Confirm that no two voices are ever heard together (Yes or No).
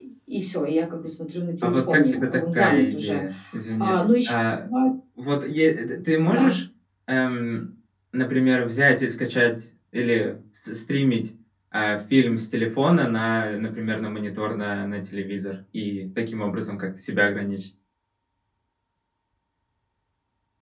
No